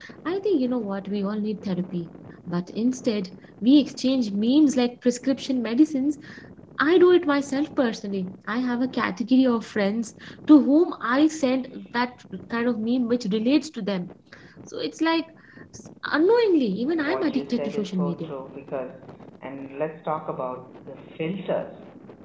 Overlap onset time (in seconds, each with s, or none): 16.9 s